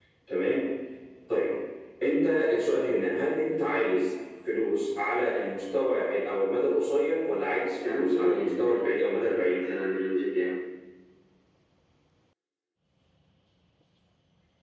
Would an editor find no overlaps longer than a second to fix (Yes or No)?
No